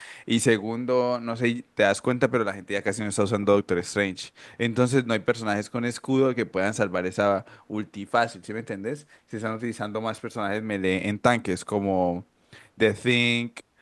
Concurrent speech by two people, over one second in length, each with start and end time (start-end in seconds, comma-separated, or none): none